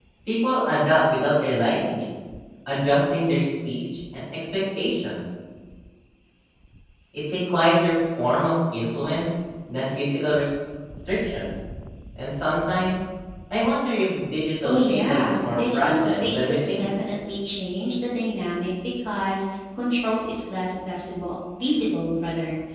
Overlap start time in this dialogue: 15 s

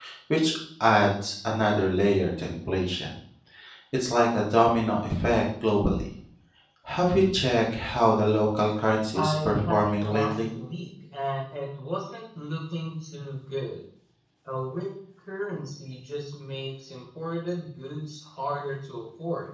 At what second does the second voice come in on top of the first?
9 s

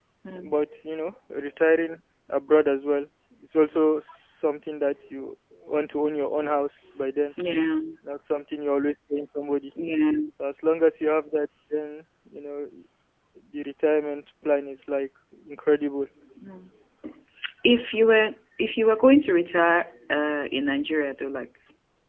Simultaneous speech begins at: none

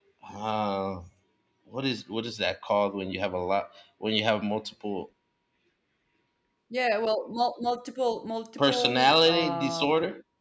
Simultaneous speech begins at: 9 s

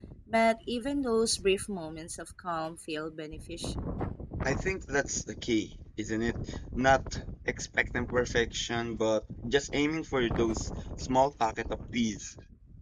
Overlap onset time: none

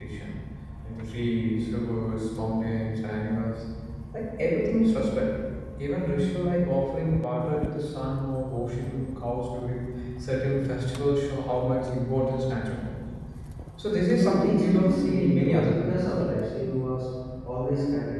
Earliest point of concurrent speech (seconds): 14 s

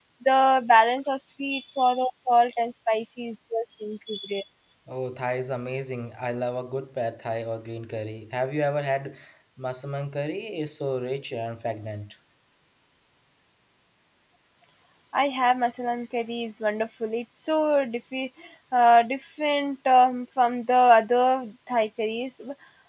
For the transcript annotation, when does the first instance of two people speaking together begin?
none

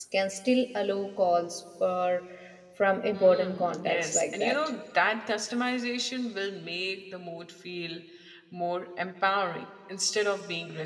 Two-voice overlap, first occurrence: 3 s

